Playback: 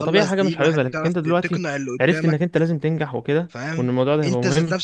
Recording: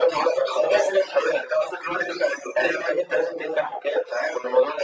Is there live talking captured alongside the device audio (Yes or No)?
No